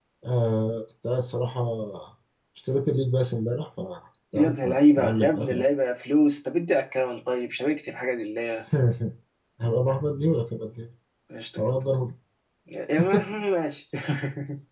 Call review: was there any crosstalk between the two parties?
Yes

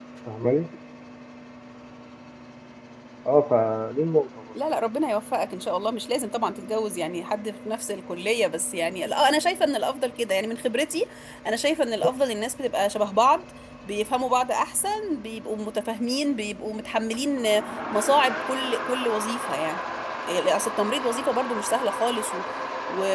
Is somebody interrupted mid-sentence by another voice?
No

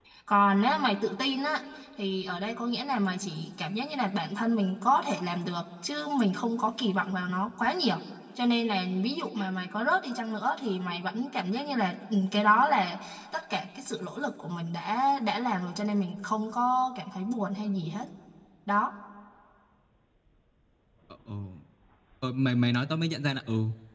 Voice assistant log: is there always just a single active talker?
Yes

